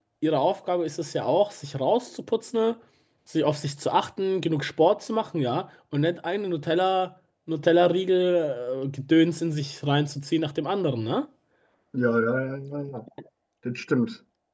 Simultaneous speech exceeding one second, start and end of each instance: none

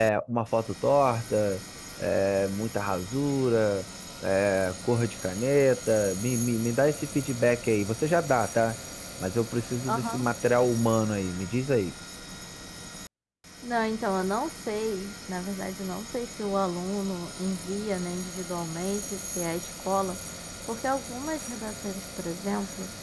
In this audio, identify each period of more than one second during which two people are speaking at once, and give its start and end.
none

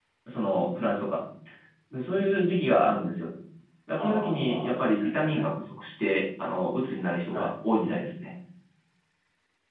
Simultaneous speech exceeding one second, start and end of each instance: 3.9-5.4

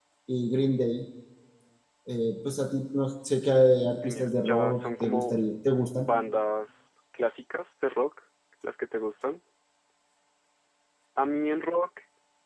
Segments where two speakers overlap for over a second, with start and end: 4.0-5.3

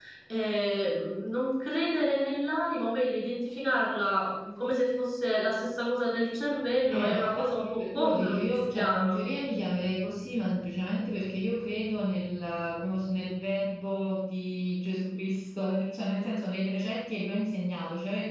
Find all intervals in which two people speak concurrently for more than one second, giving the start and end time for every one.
6.9-9.2

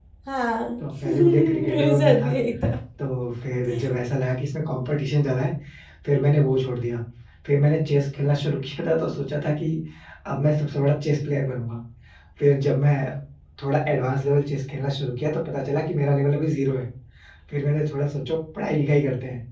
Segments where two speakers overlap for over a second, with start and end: 0.8-2.3

